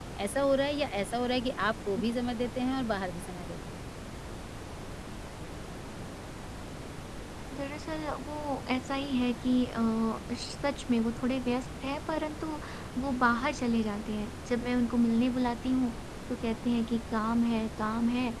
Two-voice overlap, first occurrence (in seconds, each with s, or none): none